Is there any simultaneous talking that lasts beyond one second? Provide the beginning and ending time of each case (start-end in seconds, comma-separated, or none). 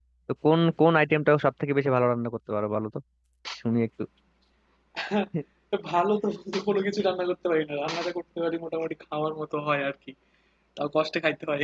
none